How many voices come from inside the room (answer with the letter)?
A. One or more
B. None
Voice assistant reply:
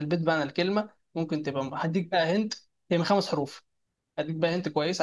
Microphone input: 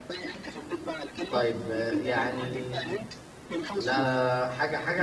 A